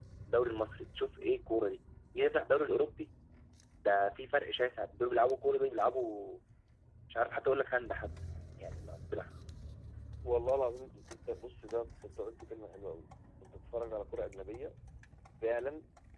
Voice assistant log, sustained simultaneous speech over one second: none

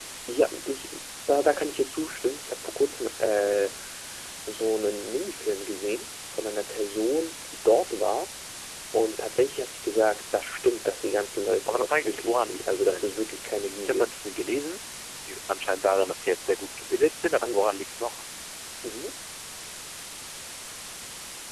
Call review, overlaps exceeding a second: present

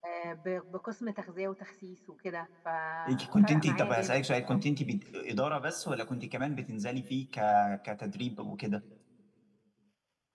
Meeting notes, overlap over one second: present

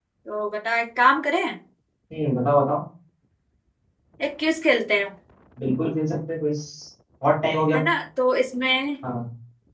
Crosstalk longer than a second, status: none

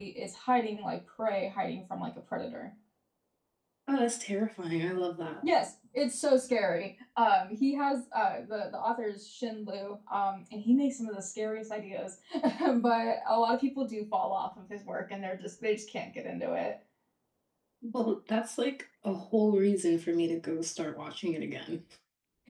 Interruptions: none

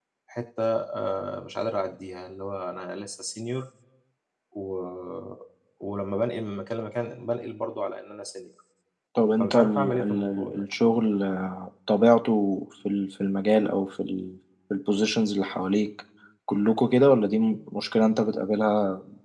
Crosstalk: present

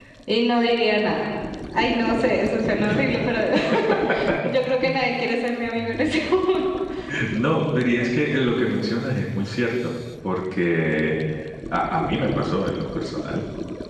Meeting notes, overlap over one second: none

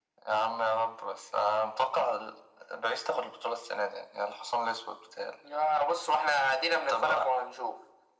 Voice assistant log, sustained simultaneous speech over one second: none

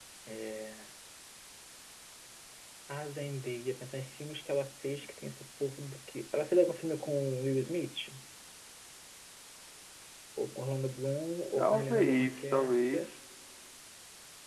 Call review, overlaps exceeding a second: present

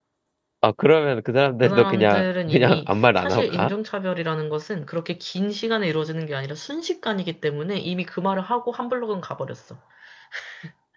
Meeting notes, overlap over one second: present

